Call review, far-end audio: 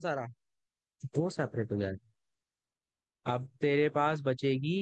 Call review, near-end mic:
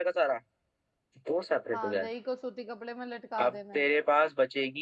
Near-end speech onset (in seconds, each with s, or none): 1.7 s